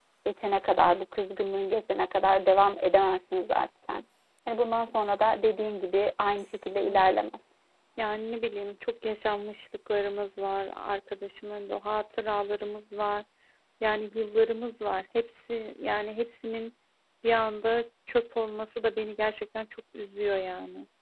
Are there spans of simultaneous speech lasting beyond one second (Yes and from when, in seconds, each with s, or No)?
No